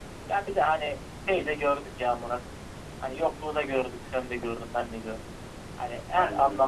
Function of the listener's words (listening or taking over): listening